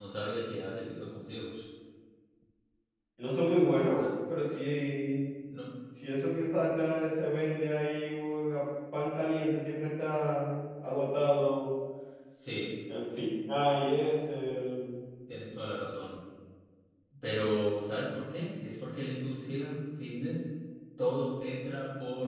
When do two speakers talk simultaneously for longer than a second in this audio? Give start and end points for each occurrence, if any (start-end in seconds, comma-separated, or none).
none